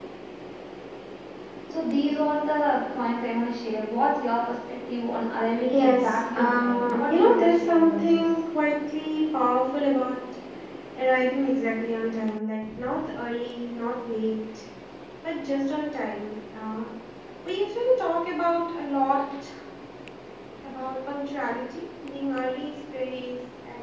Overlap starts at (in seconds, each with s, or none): 5.7 s